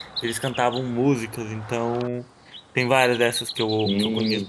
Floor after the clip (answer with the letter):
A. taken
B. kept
A